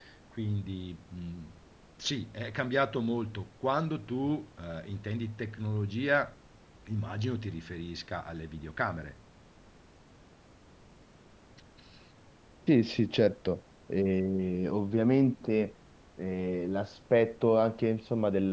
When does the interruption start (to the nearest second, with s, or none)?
none